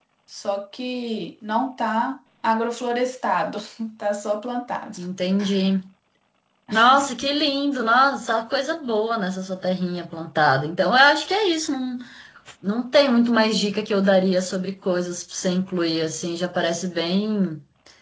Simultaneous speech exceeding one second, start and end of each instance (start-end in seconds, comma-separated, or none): none